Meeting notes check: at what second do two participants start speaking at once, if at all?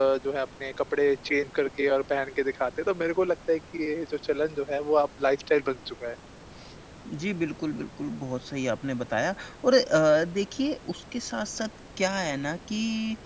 none

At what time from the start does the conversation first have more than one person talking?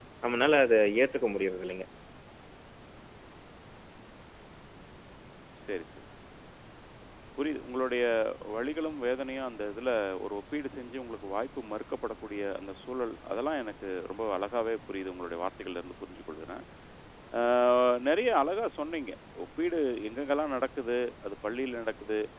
none

